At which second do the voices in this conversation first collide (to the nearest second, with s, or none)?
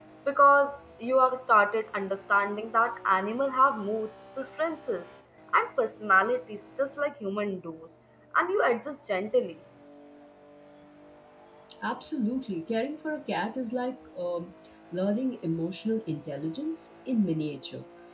none